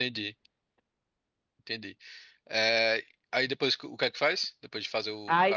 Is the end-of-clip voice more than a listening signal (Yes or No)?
Yes